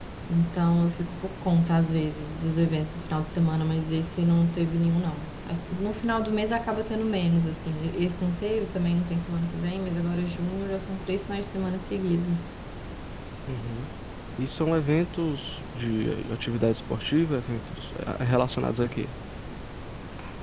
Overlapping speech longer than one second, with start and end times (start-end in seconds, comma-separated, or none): none